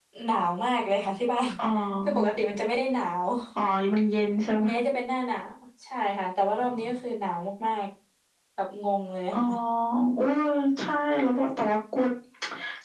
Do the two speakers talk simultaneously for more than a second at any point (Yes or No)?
No